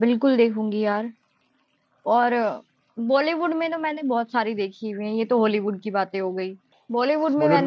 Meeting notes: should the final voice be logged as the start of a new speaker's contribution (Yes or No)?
No